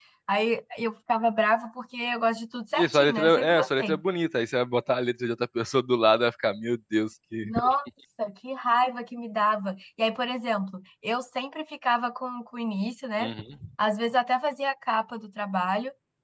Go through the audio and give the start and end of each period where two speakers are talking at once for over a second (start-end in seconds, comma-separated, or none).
2.8-4.0